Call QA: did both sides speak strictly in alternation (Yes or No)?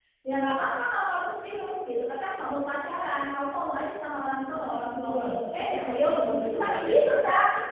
No